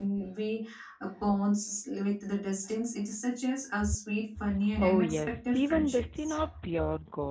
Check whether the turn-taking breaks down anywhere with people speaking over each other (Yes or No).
Yes